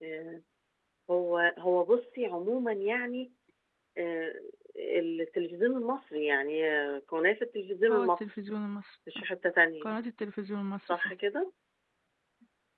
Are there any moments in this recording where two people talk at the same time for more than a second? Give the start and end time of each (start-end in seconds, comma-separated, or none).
none